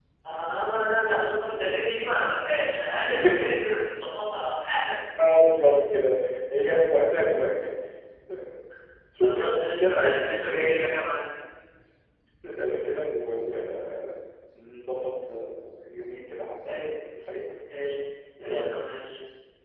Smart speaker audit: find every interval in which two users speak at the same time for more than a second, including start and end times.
9.2-10.7

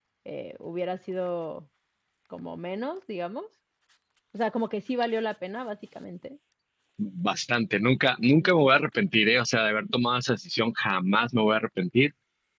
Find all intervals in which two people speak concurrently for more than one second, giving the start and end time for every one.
none

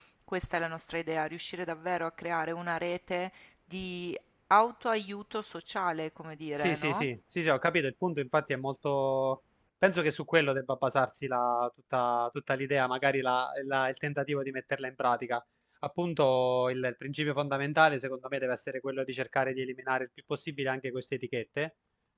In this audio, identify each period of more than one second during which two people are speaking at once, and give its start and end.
none

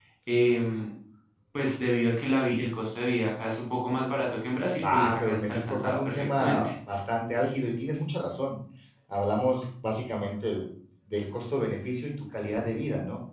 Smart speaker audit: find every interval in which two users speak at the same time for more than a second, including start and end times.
4.8-6.7

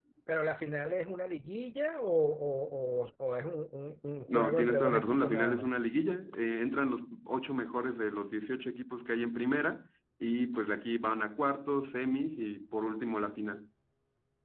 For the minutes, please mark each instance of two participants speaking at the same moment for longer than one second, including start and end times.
4.3-5.7

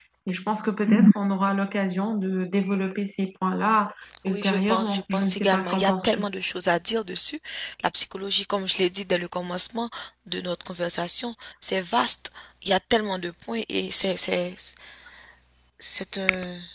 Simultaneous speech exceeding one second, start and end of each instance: 4.3-6.2

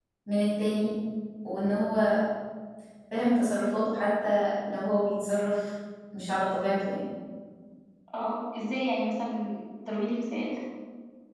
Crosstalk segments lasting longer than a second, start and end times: none

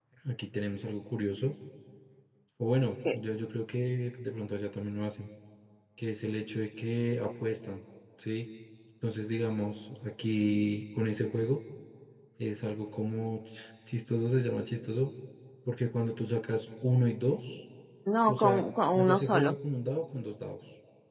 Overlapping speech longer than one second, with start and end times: 18.3-19.6

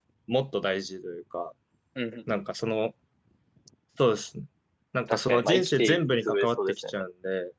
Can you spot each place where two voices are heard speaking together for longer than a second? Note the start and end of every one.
5.1-7.0

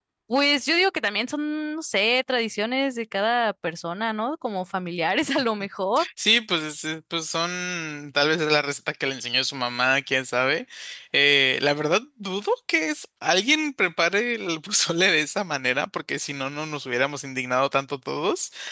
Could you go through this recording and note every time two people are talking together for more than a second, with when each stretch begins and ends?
none

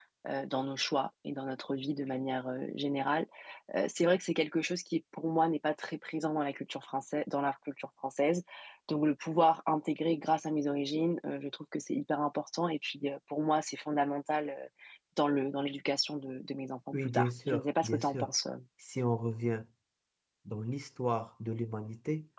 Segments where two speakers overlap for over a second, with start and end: 16.9-18.3

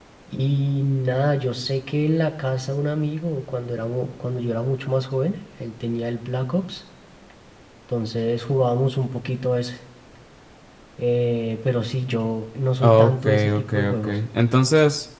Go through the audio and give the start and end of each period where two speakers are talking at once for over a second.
12.8-14.2

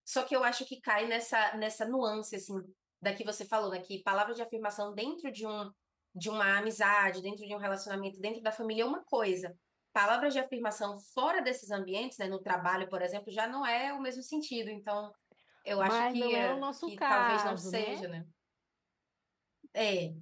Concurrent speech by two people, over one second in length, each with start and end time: 15.8-18.1

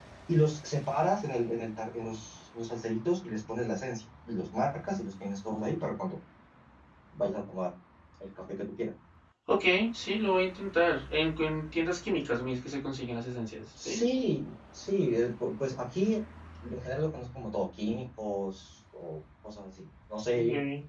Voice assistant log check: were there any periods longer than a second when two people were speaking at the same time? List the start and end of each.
none

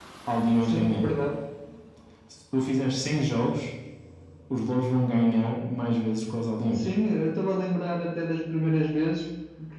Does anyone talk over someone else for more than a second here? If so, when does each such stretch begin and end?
none

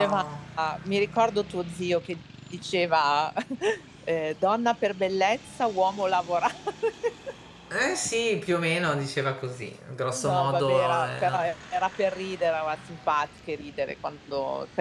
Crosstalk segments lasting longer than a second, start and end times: 10.2-11.4

